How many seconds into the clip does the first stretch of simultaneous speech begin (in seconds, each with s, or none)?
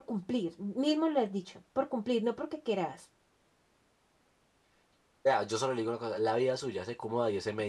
none